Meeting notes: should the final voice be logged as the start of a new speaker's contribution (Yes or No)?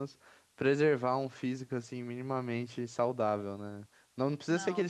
No